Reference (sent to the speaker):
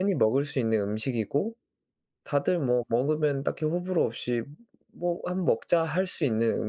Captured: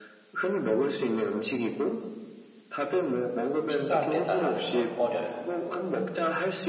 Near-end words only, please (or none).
피자 배달하는 걸 꺼려요.